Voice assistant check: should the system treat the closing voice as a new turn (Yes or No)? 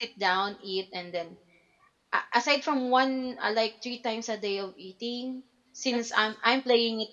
No